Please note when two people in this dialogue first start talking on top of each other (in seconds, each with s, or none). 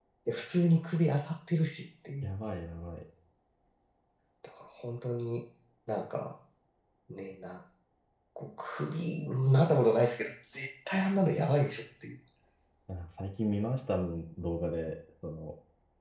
none